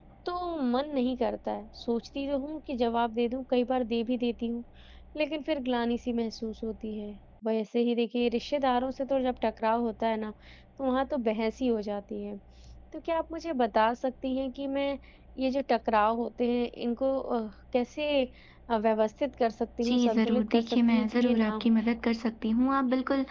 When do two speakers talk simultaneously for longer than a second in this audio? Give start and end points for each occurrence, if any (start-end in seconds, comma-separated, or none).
19.9-21.8